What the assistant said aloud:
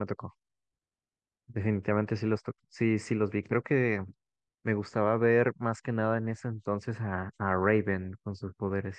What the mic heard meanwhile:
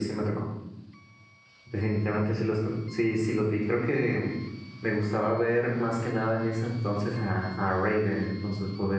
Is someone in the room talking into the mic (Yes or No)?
No